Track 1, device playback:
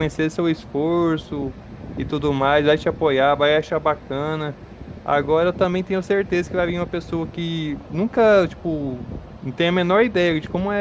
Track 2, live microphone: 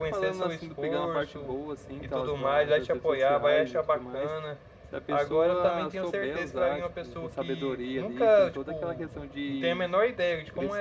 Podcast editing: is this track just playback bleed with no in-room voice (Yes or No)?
No